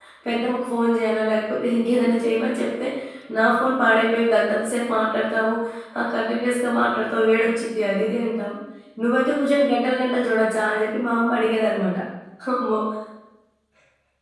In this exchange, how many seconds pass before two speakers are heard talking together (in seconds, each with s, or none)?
none